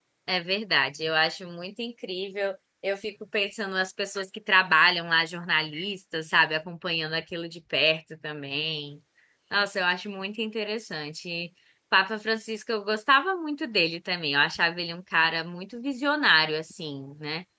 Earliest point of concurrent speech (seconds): none

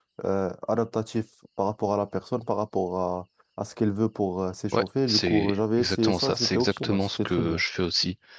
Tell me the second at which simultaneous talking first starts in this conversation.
4.7 s

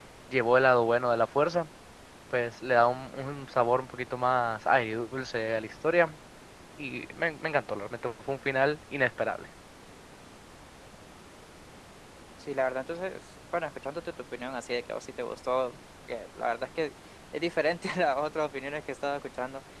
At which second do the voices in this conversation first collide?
none

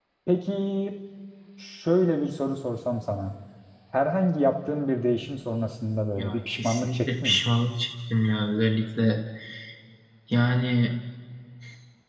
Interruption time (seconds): 6.2 s

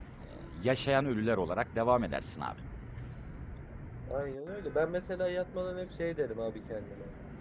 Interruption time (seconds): none

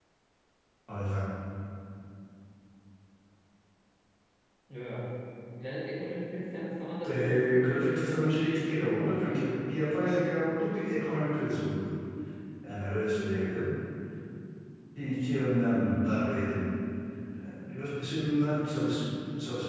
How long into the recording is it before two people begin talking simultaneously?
7.0 s

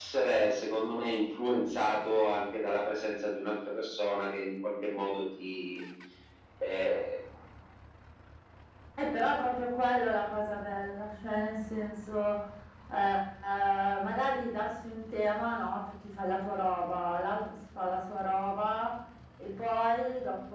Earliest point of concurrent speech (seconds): none

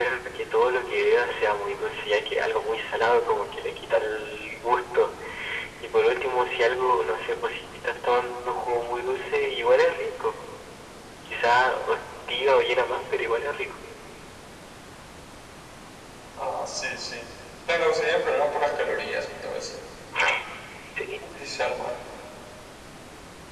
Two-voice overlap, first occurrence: none

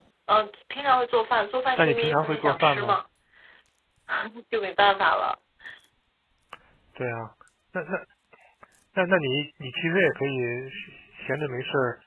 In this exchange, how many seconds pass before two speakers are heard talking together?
1.8 s

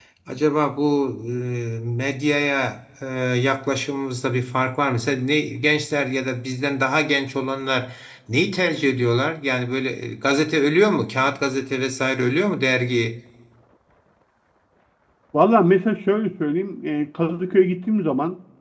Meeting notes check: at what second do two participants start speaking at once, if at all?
none

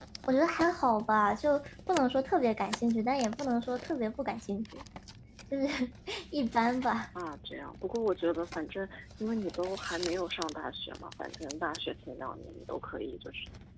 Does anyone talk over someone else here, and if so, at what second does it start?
none

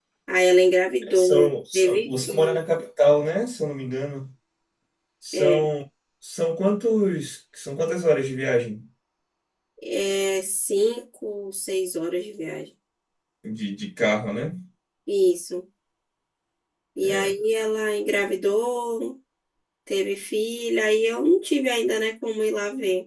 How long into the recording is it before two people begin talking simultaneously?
1.1 s

